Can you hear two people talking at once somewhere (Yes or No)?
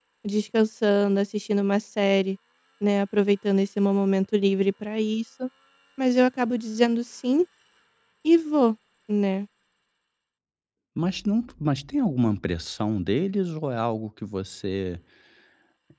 No